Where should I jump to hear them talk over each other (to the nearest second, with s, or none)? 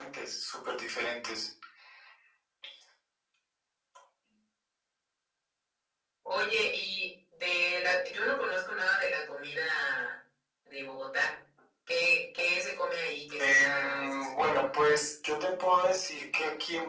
13 s